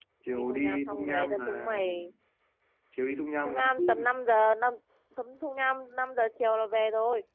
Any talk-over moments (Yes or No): Yes